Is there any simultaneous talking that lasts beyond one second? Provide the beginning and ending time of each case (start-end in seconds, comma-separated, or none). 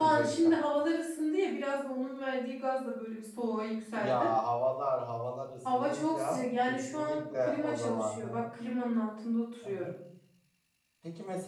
5.7-8.4